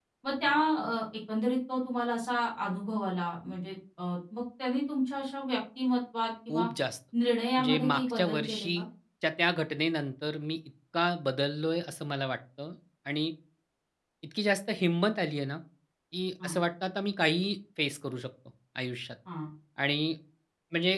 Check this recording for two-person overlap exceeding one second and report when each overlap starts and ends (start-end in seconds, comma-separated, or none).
7.6-8.8